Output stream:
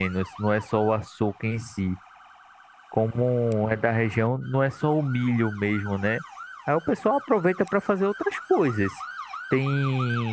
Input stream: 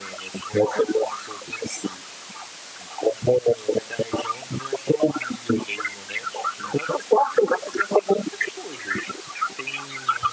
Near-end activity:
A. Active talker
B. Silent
B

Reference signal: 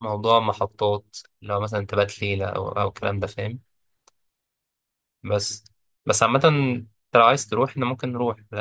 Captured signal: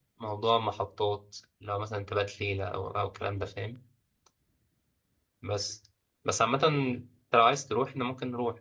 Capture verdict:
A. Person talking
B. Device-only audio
B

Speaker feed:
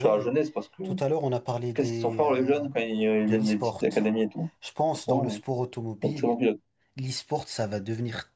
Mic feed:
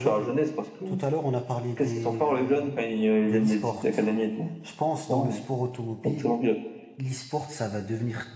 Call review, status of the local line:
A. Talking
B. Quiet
B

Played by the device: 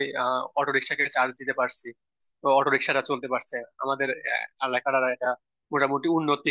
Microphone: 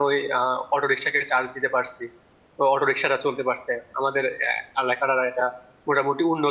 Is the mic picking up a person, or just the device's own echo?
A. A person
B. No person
B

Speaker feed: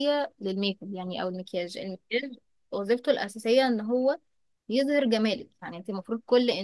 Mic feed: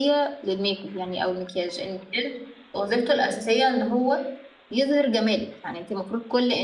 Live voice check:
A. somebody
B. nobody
B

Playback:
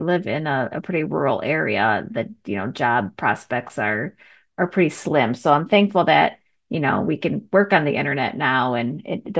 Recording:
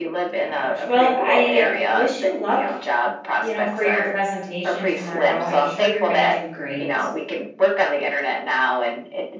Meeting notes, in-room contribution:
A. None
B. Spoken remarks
B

